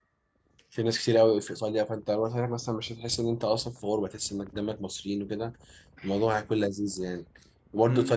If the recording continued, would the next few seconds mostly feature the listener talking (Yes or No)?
No